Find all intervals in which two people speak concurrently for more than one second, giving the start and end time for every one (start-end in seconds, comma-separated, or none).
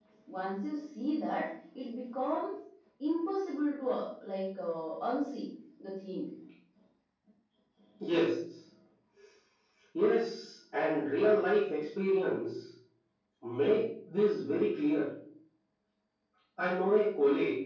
none